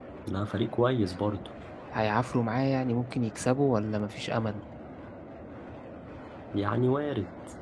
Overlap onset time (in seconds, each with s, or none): none